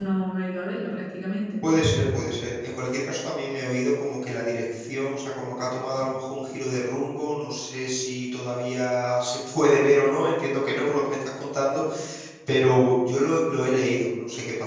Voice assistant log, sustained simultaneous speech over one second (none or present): none